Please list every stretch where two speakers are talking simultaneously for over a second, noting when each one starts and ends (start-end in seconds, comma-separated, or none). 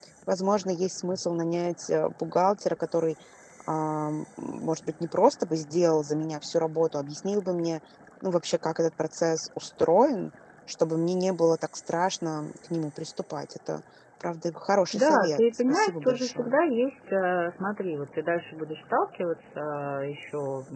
14.9-16.6